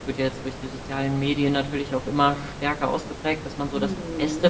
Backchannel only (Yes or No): Yes